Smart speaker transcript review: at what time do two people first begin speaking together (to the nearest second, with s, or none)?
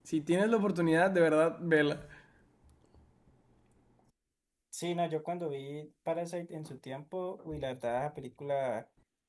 none